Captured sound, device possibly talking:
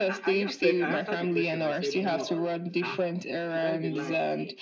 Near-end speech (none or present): present